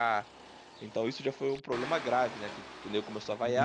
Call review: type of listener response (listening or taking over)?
taking over